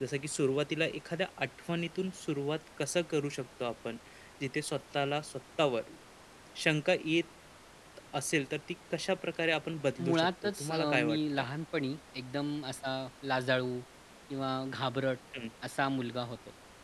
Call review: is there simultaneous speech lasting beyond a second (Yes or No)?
Yes